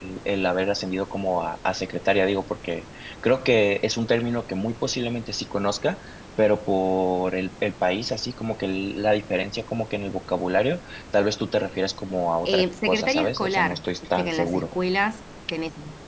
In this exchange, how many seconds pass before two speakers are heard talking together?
12 s

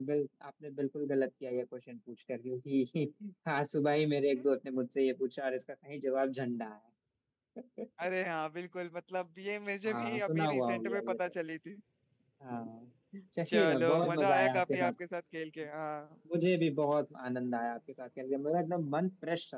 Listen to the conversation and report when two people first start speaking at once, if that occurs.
10 s

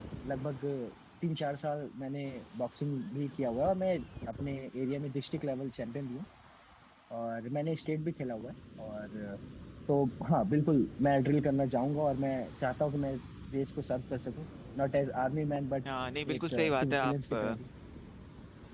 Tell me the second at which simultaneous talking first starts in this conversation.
16 s

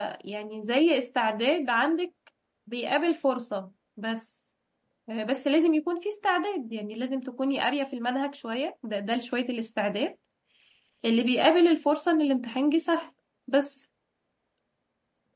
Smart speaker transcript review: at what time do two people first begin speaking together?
none

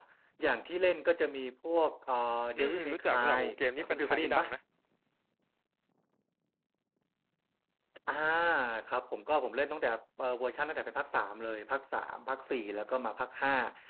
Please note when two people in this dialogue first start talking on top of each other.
3 s

